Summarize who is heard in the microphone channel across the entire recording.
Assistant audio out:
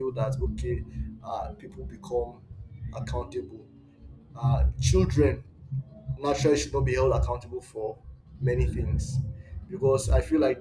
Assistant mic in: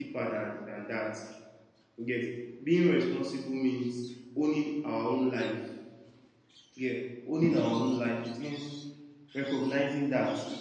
user only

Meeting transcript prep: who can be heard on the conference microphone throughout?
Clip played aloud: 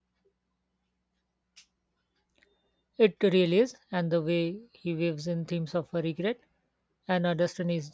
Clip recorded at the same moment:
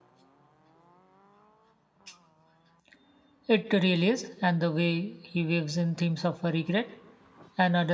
echo only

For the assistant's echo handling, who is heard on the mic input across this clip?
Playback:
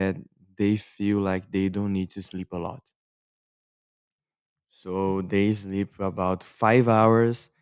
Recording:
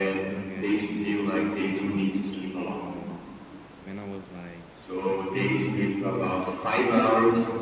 both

